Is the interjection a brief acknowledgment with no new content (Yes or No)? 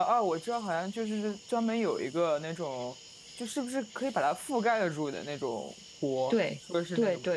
No